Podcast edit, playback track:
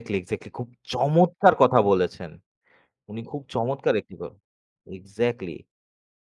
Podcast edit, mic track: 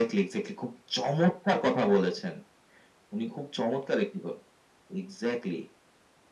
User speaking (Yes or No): No